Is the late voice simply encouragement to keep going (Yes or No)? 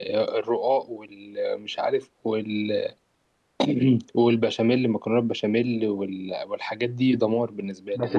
No